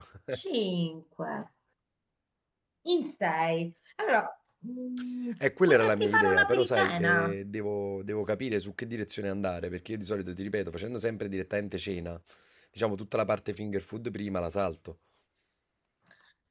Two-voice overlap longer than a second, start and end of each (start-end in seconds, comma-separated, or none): 5.7-7.4